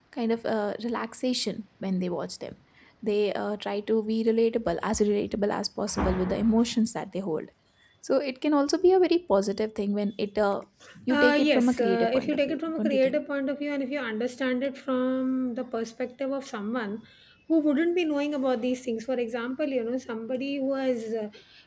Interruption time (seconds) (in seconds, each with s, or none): 11.1 s